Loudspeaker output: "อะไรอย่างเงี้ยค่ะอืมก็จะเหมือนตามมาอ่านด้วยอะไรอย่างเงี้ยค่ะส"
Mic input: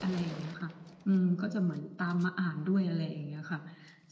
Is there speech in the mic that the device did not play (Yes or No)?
No